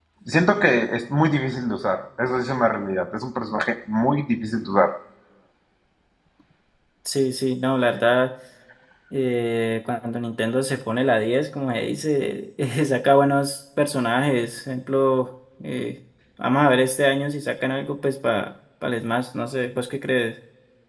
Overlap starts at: none

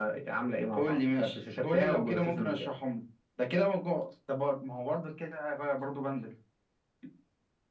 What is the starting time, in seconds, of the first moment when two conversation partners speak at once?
0.8 s

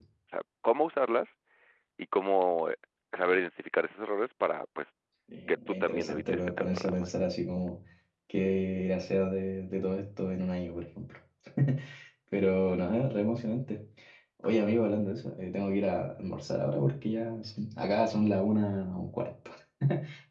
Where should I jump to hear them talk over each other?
5.5 s

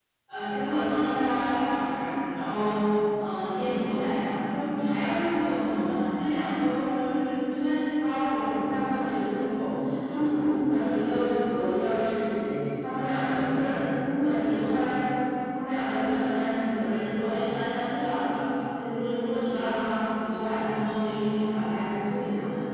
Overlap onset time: none

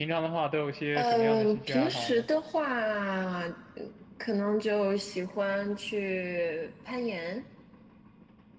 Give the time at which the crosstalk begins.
0.9 s

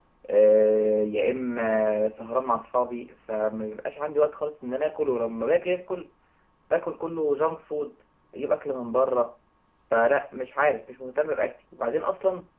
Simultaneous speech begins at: none

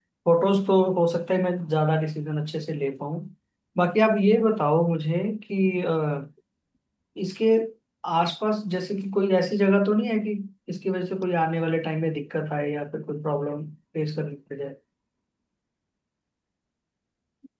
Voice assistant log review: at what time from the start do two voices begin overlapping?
none

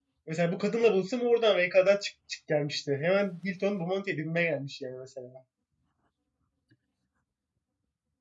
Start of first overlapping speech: none

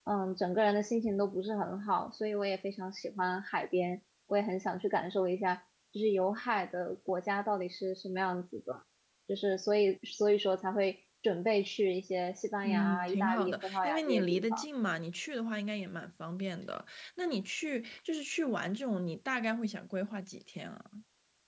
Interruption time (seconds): 12.6 s

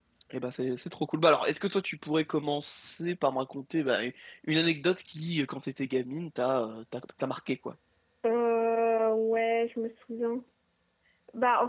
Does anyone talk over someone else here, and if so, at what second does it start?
none

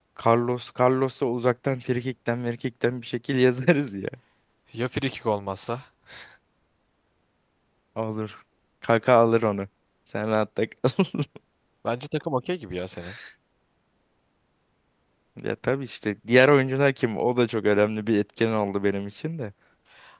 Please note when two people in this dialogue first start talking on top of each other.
none

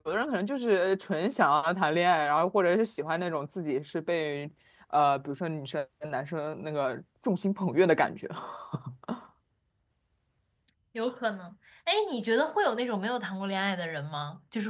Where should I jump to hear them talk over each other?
none

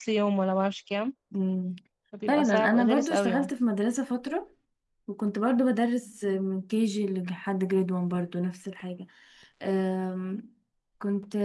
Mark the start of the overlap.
2.3 s

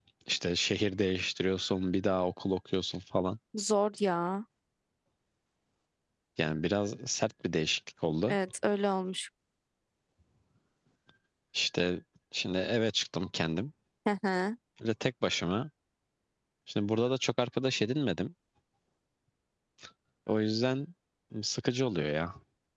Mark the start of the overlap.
none

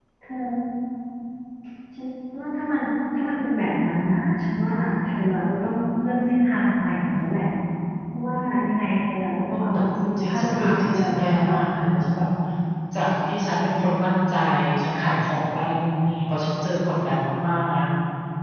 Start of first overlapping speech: 9.5 s

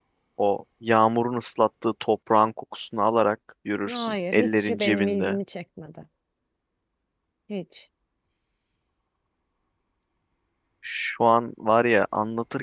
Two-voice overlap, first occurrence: 3.9 s

